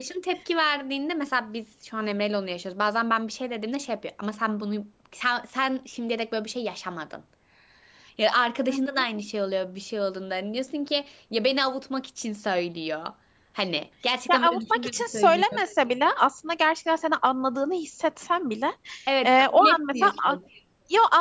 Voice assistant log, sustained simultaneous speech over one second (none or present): present